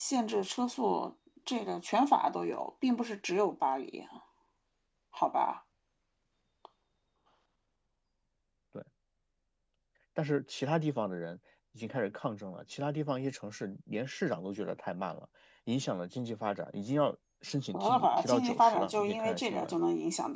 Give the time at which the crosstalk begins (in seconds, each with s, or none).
17.7 s